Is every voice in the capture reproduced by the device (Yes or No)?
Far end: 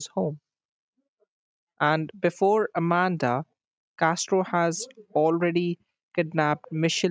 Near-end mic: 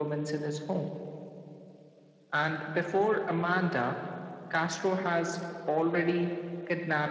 Yes